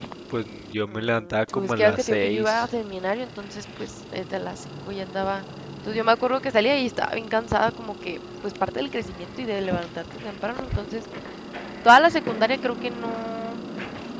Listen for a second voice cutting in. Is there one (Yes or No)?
Yes